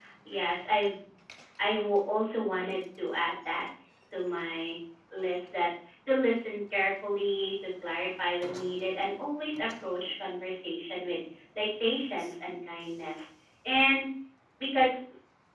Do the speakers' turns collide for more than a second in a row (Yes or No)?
No